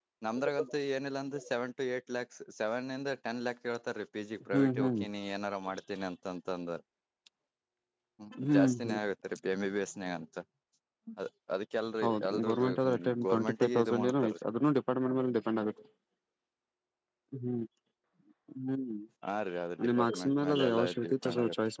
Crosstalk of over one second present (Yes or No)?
Yes